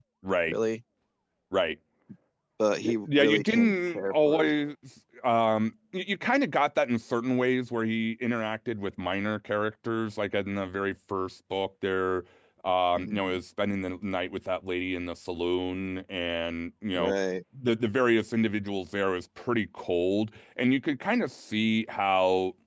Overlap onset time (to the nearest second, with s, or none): 3 s